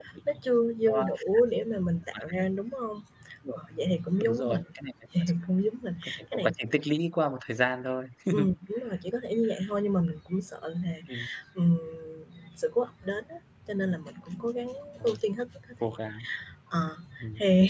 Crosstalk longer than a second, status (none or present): none